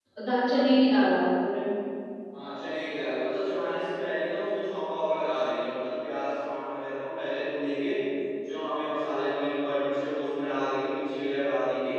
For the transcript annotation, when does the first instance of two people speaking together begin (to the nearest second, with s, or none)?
none